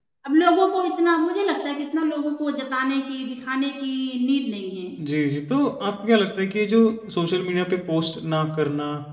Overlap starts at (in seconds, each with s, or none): none